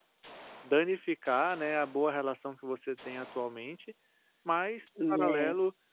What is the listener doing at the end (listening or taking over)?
listening